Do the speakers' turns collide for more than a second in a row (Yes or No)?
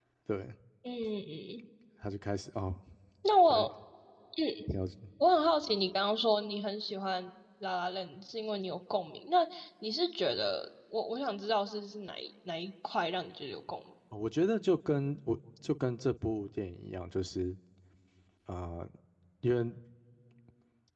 No